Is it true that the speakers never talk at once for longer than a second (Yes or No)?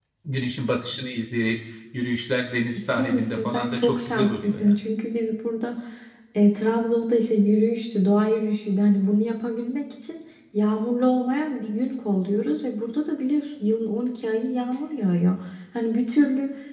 No